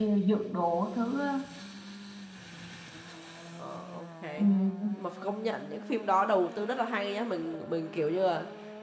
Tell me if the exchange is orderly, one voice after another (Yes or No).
Yes